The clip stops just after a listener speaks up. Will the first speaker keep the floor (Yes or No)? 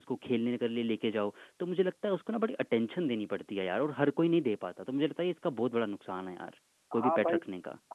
No